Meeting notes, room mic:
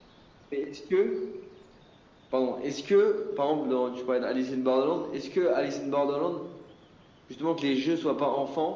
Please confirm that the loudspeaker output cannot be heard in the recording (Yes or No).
No